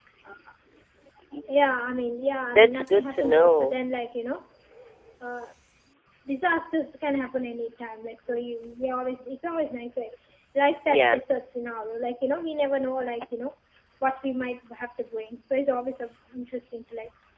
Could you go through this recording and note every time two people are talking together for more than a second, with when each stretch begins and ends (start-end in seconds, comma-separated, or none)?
2.5-3.7